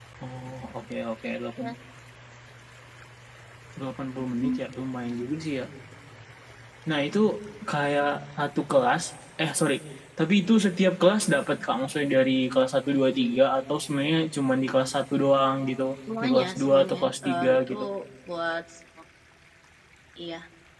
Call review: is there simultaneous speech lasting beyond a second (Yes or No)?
Yes